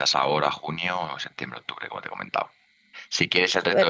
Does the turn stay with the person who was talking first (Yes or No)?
Yes